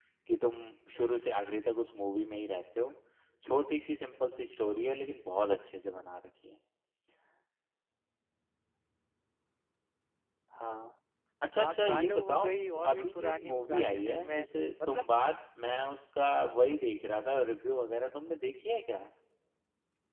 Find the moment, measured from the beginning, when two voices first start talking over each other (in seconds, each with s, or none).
11.6 s